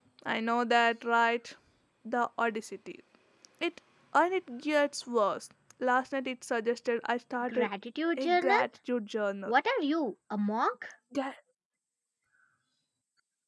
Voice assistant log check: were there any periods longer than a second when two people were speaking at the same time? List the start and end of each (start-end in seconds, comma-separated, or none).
none